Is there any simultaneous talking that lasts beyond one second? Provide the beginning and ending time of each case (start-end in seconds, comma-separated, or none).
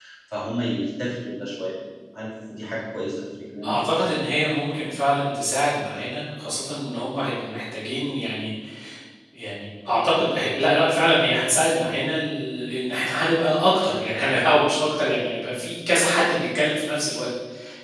none